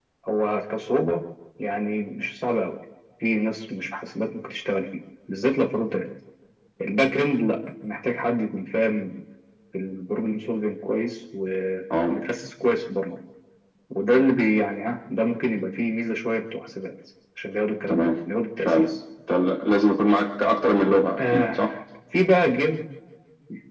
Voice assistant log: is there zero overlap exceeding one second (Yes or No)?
Yes